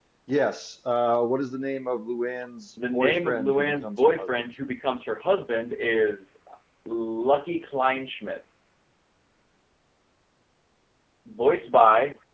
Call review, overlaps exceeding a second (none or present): present